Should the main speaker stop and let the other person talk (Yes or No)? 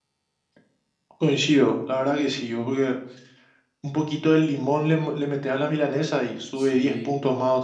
Yes